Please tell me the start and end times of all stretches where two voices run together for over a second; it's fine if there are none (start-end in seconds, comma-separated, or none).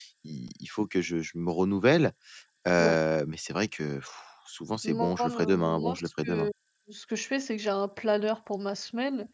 4.8-6.5